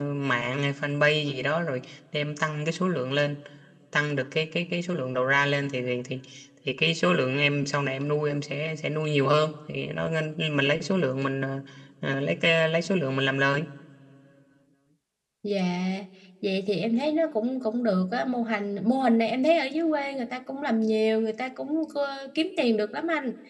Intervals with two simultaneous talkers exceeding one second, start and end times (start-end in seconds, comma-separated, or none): none